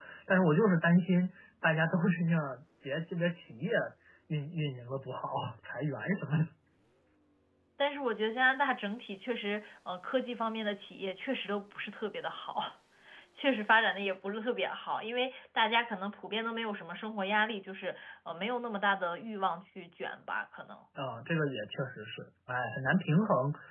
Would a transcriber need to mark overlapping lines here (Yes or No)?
No